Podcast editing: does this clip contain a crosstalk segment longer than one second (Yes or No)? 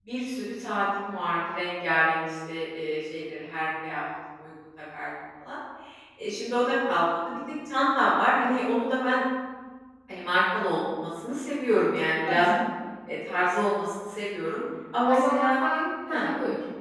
No